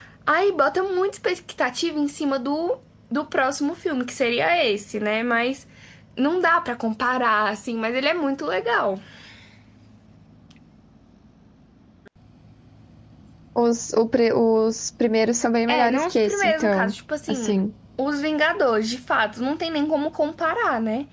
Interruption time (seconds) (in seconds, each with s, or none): 15.7 s